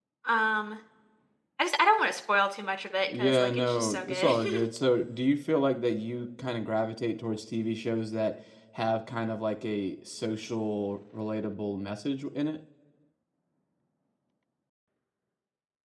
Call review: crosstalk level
present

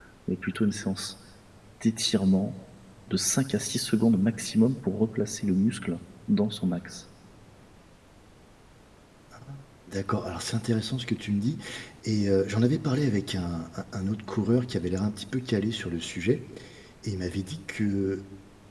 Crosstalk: none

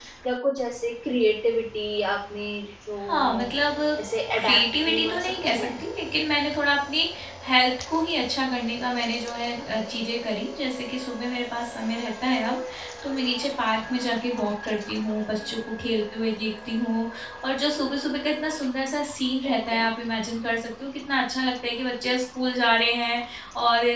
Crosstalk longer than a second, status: present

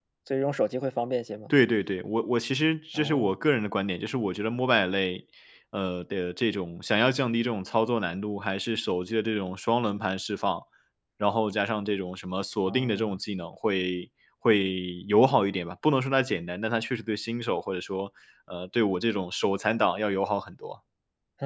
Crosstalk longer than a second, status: none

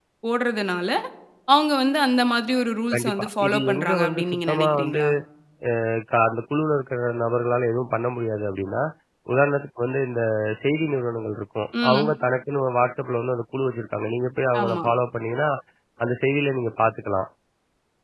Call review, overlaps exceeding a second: present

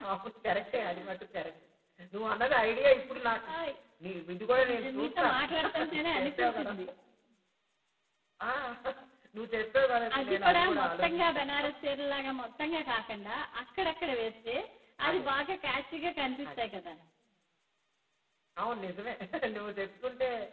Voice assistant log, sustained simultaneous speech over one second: present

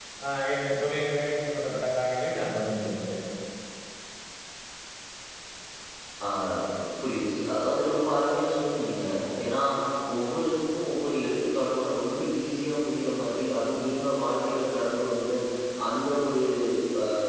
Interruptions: none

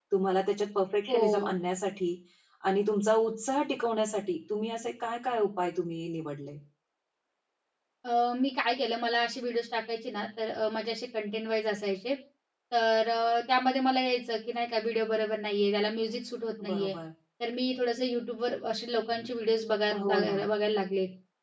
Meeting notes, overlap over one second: none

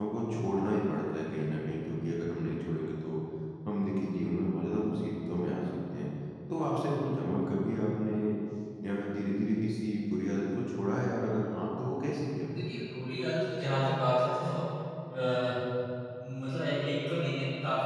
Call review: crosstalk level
none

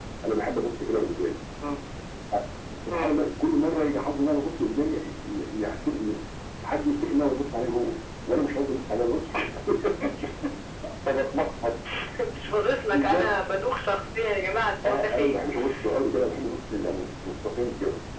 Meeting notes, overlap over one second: none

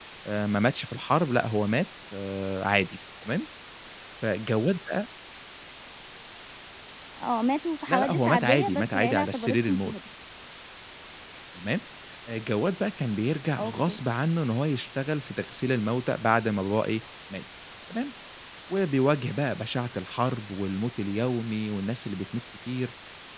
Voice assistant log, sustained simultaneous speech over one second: present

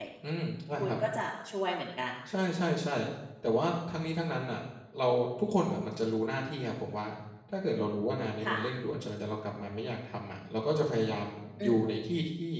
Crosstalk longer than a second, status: none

